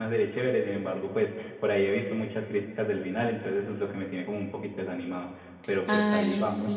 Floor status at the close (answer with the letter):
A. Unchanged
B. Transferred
B